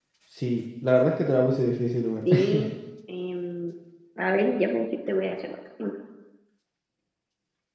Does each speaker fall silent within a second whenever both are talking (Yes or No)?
Yes